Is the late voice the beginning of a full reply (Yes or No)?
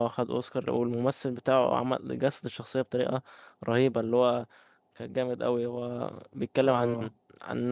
No